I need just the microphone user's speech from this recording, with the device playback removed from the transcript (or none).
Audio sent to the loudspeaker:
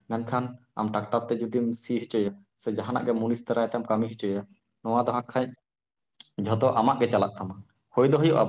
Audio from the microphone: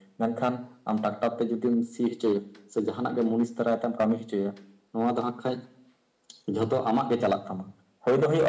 none